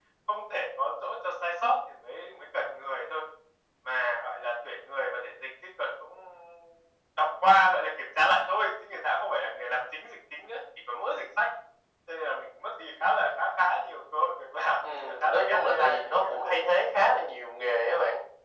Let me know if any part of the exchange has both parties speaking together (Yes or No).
Yes